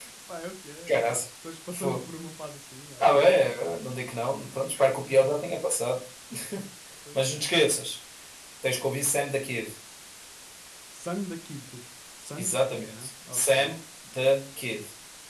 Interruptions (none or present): present